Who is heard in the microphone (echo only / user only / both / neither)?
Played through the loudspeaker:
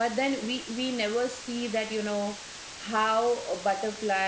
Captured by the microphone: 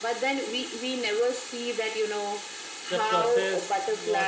both